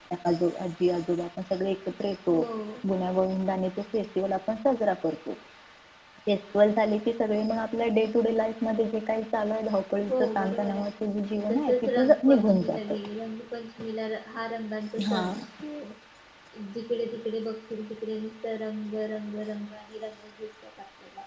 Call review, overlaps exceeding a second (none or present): present